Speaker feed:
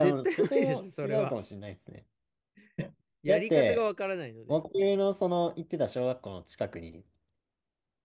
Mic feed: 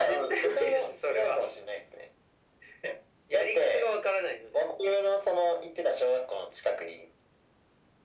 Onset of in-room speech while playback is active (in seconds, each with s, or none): none